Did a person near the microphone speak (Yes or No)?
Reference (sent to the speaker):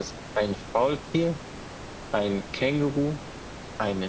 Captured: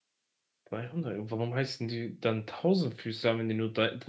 Yes